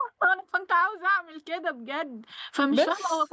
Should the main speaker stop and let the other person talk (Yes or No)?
No